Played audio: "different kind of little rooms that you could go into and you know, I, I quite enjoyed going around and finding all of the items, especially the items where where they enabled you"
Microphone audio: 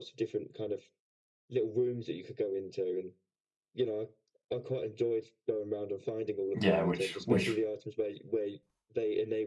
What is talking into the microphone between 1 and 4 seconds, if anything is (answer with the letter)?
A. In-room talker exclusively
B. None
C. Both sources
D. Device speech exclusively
D